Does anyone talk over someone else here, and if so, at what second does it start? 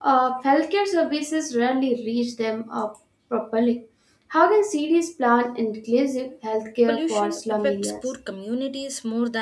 7 s

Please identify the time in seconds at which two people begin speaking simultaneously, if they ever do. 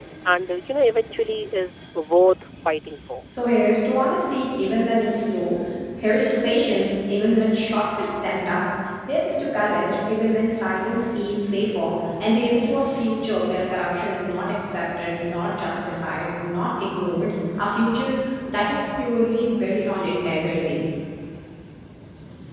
none

